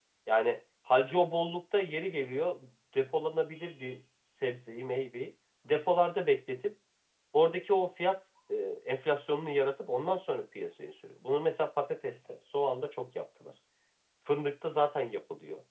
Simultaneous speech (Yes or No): No